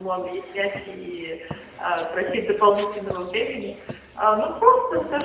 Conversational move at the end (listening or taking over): listening